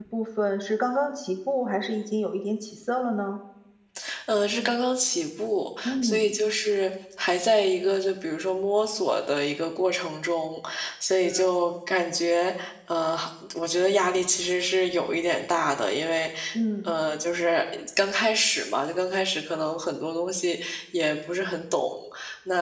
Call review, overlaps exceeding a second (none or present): none